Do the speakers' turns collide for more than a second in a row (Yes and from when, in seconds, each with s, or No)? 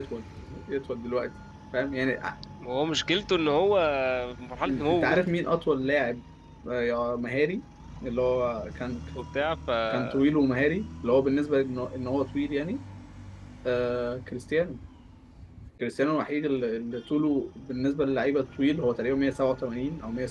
No